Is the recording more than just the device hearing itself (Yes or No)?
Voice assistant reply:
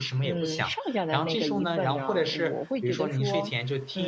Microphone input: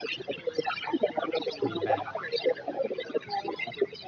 Yes